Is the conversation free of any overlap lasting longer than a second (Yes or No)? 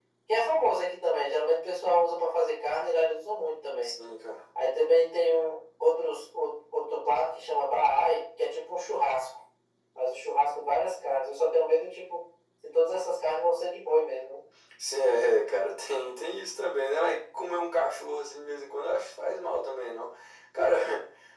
Yes